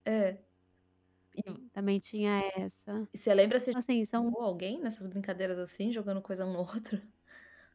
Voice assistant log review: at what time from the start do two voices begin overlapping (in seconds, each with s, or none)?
none